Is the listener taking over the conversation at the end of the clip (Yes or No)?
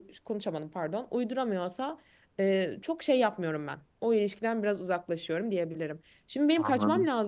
No